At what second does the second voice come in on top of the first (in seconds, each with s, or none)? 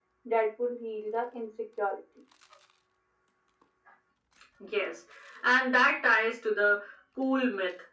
none